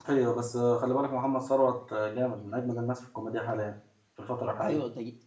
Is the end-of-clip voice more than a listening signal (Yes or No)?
Yes